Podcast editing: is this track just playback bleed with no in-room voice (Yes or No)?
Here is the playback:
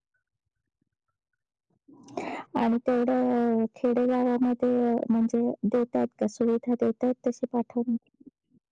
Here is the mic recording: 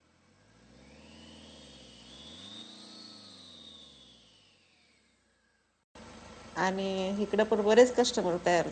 No